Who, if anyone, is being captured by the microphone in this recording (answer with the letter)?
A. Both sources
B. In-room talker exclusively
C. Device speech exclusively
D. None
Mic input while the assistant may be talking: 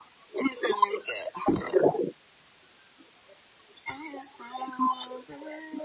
C